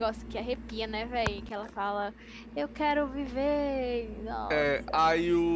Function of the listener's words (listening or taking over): taking over